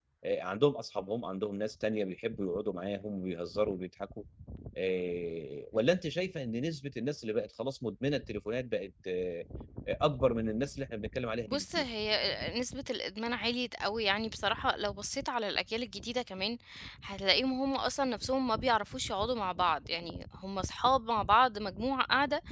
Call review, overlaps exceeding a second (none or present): none